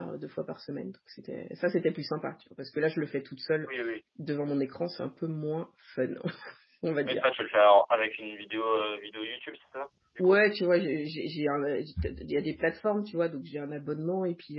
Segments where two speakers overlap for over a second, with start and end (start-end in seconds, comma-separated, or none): none